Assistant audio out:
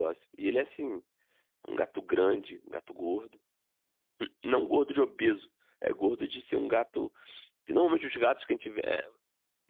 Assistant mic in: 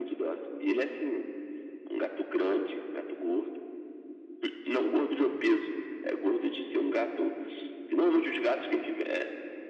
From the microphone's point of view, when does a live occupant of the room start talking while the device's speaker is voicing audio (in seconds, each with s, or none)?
none